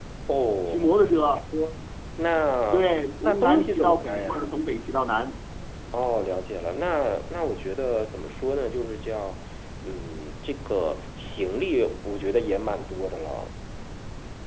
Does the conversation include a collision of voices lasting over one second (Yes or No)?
Yes